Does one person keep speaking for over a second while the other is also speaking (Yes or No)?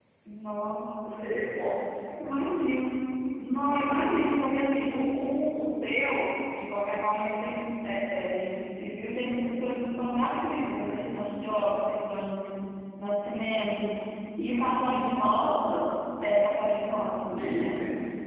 No